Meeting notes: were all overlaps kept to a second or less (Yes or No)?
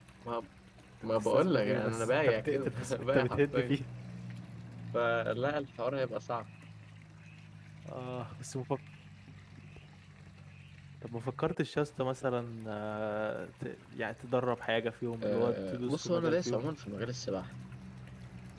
No